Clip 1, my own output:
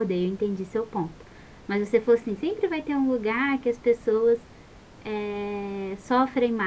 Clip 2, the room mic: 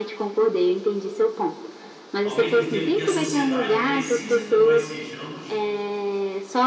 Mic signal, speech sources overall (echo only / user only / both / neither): both